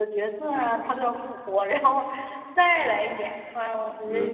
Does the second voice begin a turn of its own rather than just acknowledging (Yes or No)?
Yes